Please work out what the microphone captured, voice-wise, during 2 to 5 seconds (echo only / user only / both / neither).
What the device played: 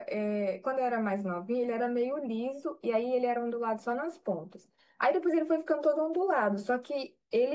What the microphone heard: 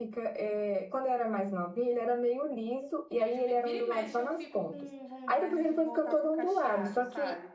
both